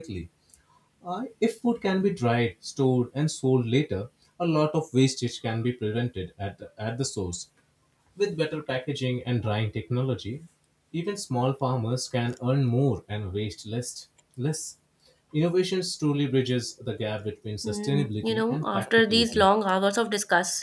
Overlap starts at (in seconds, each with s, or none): 17.6 s